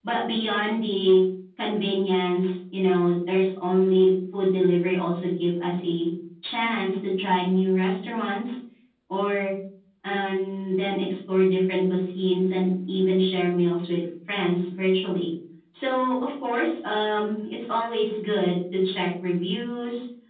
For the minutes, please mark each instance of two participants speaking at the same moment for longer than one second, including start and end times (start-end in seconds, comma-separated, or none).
none